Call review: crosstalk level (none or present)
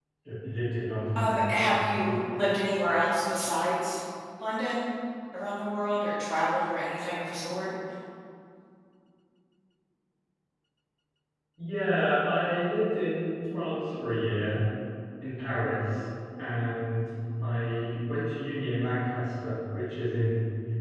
present